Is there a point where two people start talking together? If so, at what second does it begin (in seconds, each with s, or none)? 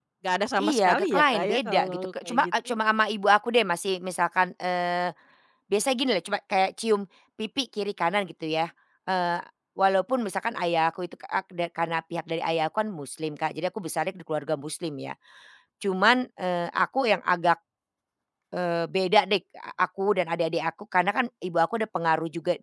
0.6 s